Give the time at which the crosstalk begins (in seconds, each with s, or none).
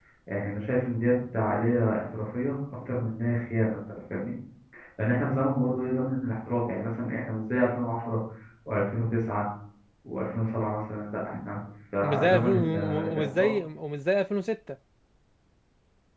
12.0 s